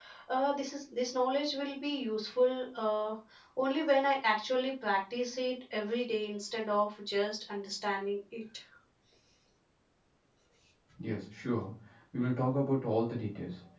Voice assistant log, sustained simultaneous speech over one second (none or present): none